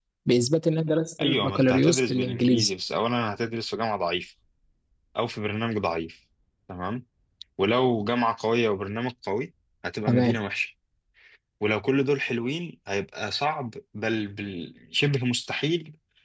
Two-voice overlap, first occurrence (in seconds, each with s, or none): 1.2 s